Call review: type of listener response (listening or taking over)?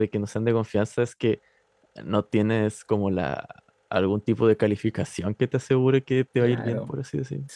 taking over